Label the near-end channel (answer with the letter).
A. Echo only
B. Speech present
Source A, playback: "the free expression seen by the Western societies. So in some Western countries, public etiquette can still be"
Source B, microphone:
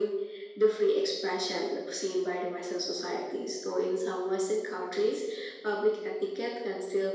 A